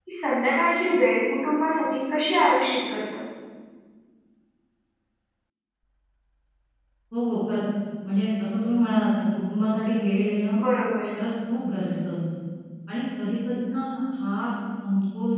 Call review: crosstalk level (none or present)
none